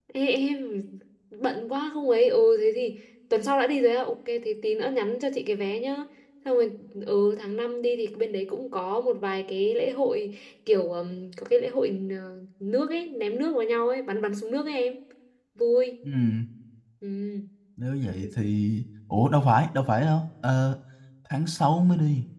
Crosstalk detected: No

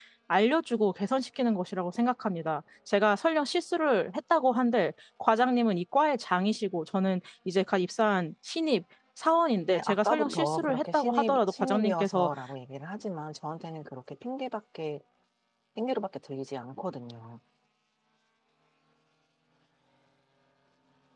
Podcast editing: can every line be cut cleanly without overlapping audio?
No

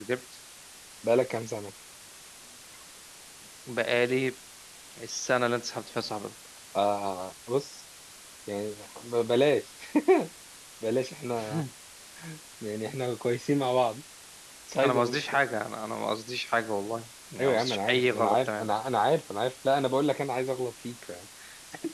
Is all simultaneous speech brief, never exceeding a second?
No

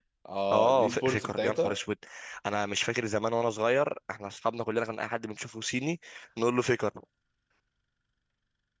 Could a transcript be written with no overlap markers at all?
No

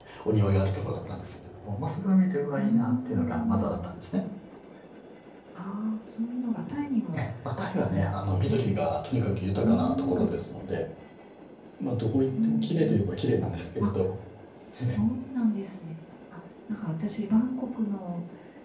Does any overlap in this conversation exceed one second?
Yes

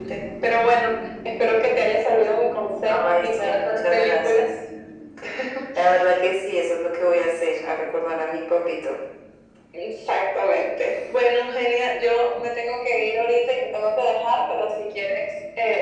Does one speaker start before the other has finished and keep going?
Yes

